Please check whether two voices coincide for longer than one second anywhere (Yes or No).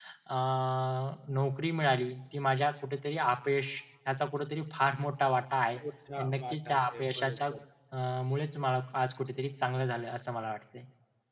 Yes